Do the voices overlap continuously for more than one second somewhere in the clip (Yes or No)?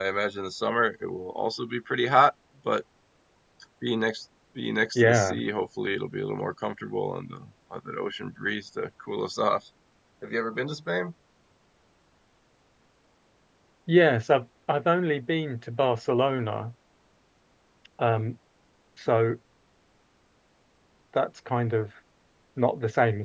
No